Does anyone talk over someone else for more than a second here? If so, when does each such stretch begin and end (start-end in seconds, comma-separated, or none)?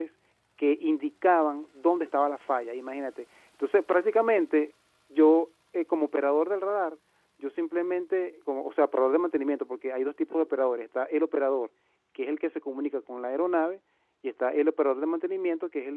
none